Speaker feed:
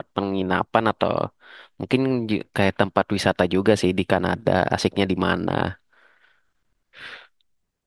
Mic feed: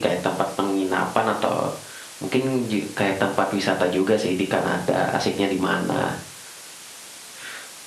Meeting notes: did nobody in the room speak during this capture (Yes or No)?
Yes